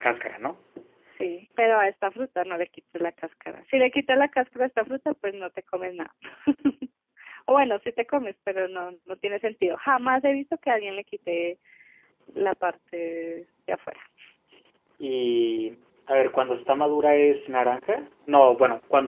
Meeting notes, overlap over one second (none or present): none